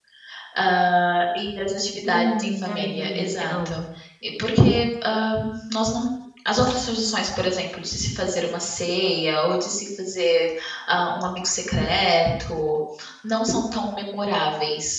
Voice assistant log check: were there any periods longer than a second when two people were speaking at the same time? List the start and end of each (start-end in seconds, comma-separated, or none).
2.0-3.8